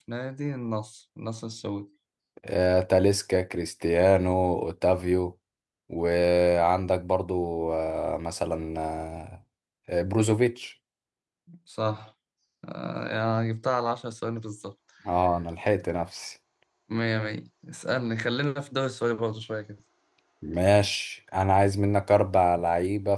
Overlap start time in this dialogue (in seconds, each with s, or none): none